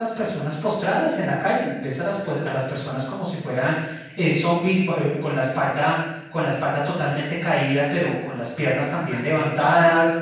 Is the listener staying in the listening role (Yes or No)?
Yes